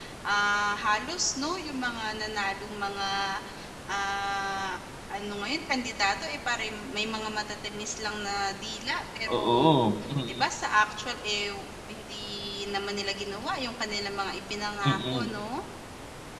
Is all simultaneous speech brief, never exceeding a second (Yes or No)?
Yes